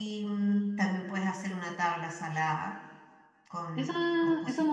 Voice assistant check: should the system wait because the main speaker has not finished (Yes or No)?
No